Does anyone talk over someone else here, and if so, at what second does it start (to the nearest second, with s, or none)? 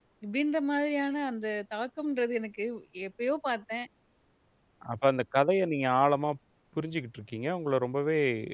none